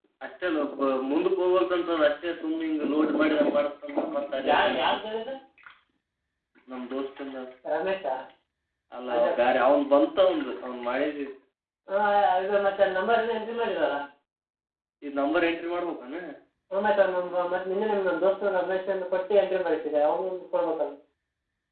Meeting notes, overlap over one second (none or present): none